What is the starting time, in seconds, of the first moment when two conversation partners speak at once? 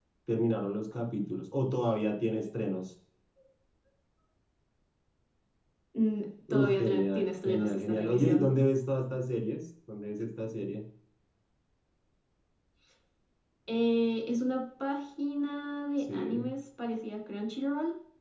6.5 s

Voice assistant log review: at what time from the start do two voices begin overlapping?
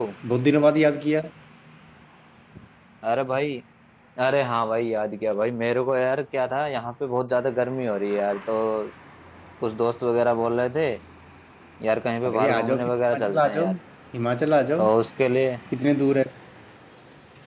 12.2 s

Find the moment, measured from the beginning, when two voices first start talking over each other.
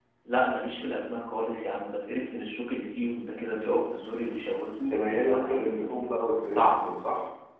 4.8 s

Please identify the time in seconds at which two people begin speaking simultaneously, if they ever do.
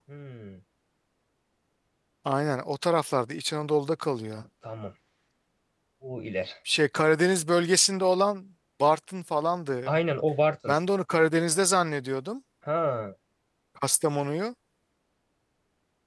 none

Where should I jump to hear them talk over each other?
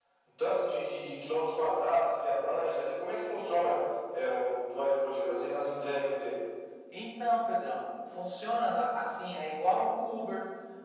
none

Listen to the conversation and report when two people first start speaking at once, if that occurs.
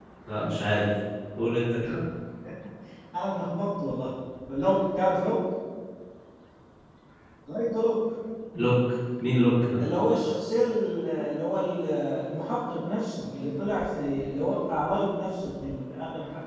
none

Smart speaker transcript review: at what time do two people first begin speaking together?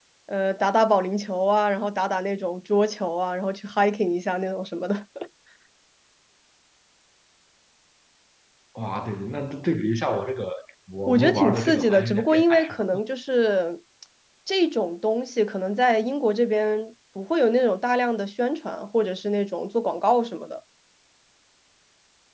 11.1 s

